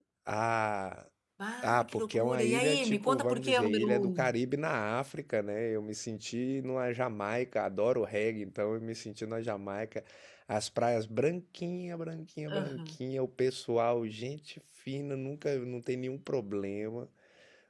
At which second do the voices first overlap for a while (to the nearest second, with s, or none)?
2 s